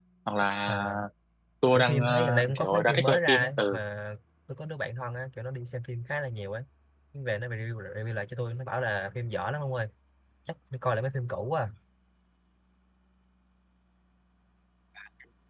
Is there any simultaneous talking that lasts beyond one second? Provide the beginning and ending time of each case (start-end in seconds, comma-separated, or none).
1.7-3.8